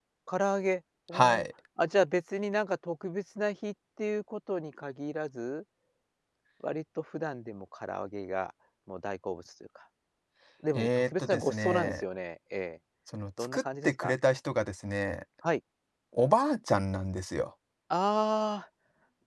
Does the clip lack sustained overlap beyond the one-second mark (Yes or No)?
No